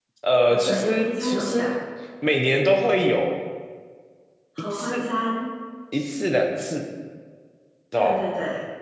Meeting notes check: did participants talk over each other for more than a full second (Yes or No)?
Yes